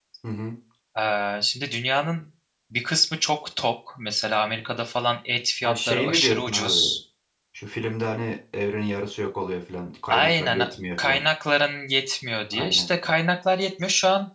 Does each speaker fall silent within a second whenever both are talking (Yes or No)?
No